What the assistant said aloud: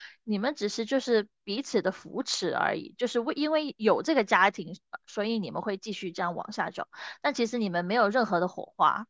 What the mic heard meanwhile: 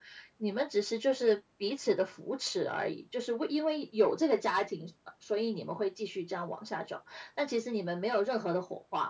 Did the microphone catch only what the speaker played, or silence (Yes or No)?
Yes